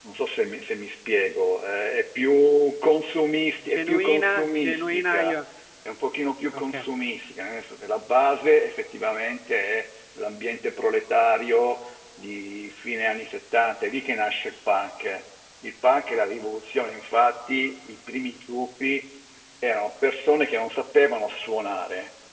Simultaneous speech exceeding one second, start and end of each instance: 3.7-5.3

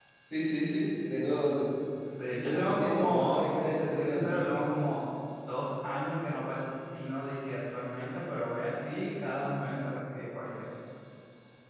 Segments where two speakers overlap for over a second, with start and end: 2.3-4.4

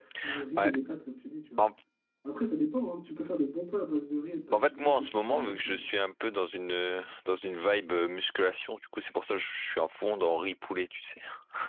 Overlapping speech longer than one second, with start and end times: 4.5-5.8

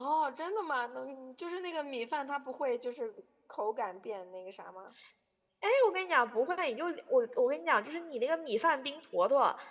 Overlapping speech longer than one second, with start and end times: none

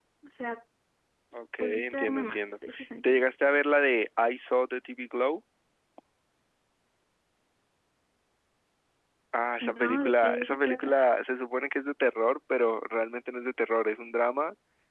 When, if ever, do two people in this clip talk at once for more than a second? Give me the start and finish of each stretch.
1.6-3.2, 9.6-10.9

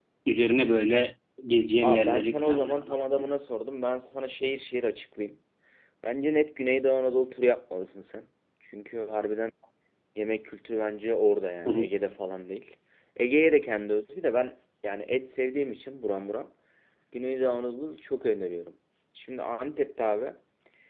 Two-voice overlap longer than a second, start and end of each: 1.8-3.2

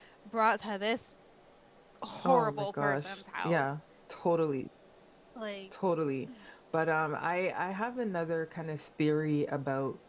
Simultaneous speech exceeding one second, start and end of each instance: 2.2-3.6

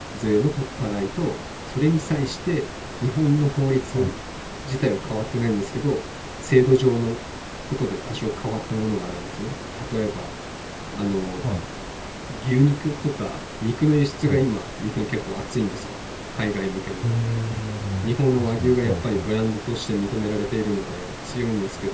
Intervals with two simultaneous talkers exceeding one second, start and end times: 18.0-19.3

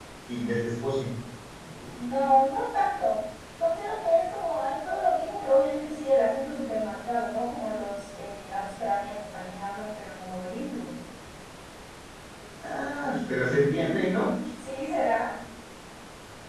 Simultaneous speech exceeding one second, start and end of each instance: none

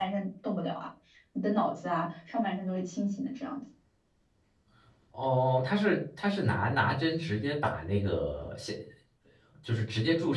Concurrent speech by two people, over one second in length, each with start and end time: none

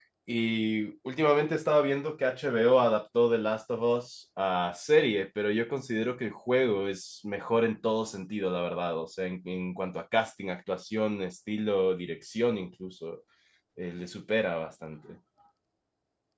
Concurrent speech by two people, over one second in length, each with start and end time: none

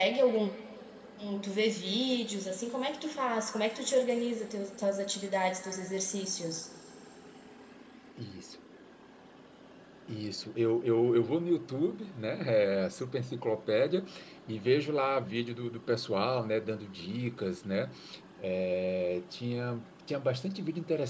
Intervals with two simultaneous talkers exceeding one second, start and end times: none

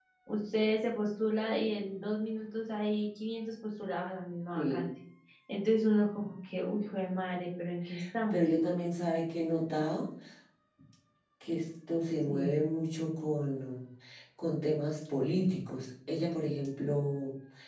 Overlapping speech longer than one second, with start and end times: none

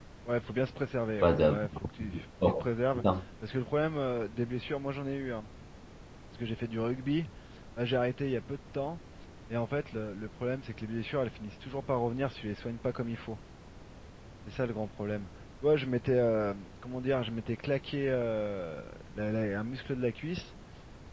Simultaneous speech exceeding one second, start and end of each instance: 1.2-2.6

